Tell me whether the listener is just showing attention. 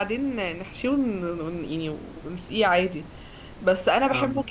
Yes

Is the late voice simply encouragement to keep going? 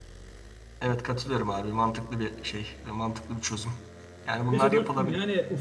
No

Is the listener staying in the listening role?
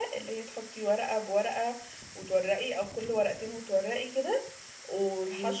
Yes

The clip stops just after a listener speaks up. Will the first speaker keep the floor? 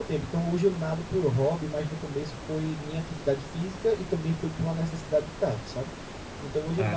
Yes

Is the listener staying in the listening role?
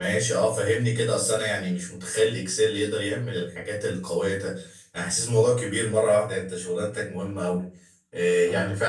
Yes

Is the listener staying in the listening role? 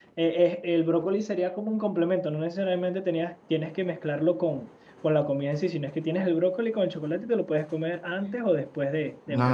No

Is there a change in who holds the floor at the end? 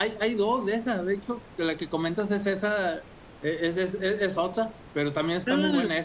No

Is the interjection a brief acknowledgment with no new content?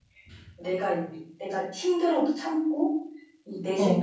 Yes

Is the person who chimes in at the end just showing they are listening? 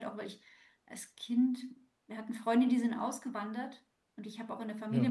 Yes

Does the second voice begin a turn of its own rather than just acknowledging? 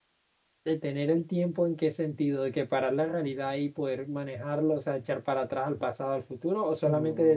Yes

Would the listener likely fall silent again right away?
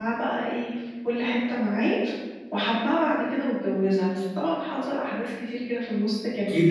No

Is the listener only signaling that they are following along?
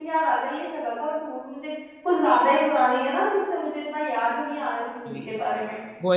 No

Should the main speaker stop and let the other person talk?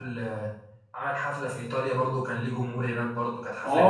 Yes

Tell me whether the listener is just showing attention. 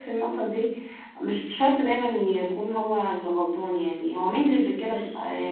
Yes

